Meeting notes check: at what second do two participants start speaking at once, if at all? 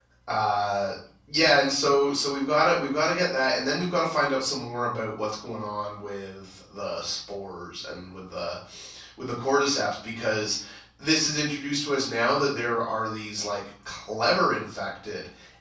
none

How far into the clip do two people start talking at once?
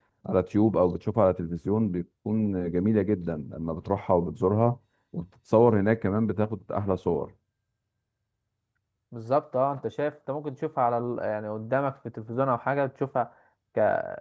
none

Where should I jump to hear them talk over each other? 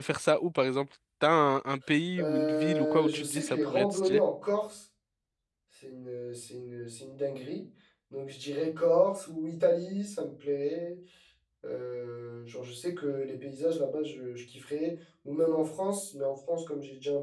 2.2 s

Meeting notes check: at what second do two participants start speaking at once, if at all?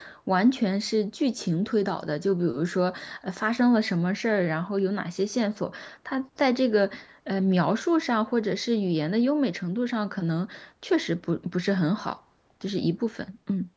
none

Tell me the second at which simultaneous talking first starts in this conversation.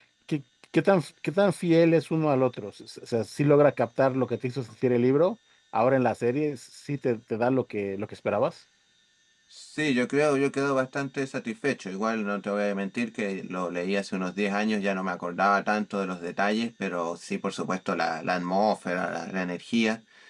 none

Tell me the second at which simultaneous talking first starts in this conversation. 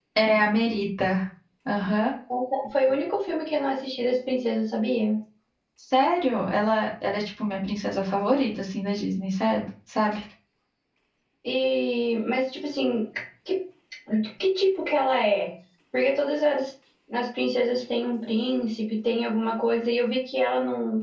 none

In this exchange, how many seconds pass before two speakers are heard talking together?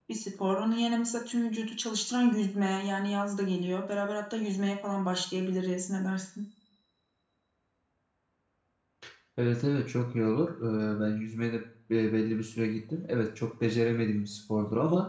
none

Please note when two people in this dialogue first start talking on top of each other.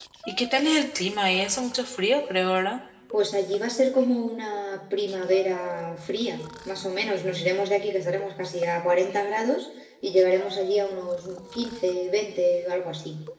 none

